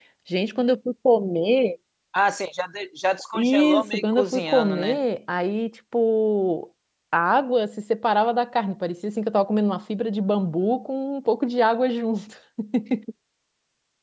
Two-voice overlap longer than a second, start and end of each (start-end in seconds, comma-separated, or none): 3.3-5.0